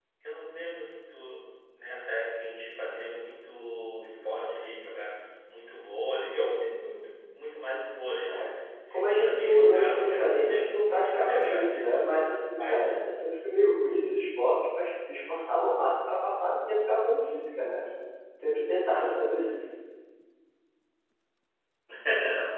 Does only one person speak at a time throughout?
No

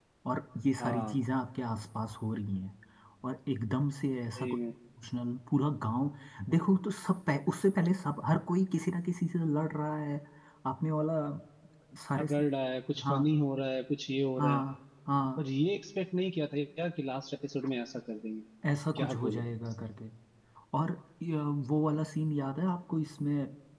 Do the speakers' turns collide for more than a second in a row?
No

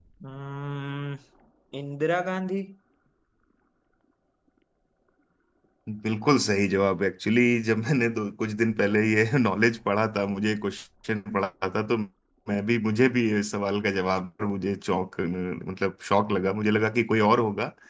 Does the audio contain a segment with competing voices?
No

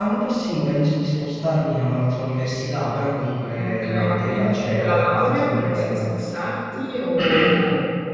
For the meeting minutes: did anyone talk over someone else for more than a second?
Yes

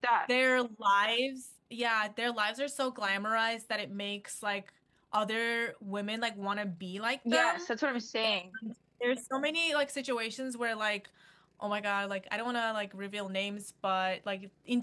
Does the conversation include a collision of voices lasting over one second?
No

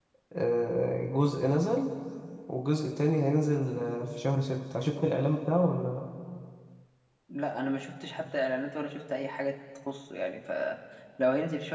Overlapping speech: No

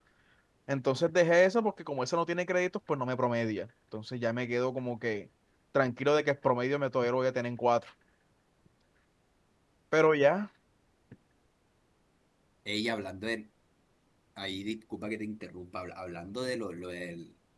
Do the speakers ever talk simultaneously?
No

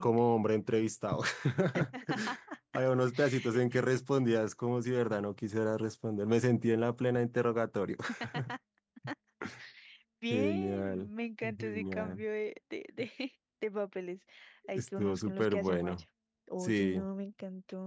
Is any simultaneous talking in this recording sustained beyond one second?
Yes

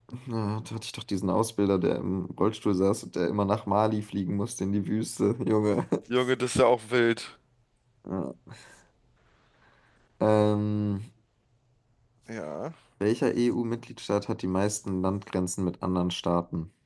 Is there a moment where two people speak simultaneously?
No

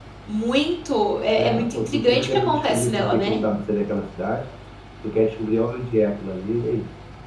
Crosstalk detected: Yes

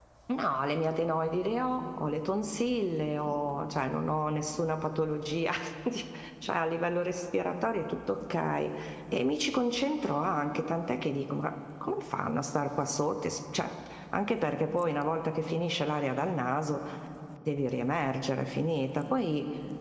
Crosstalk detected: No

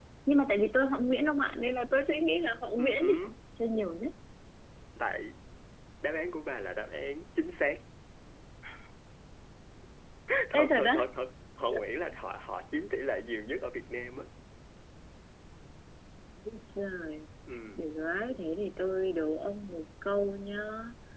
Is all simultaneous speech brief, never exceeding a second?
Yes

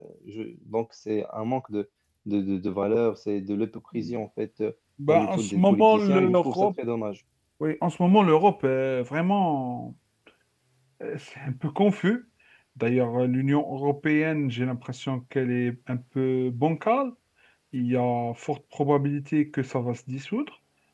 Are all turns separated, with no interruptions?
No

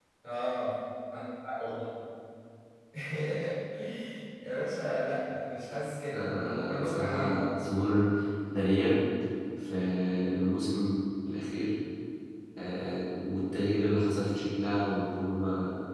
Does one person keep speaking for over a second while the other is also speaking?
Yes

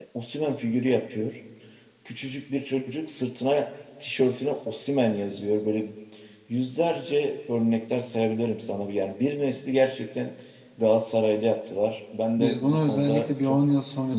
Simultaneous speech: Yes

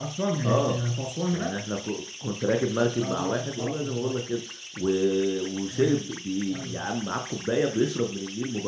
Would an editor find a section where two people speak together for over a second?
Yes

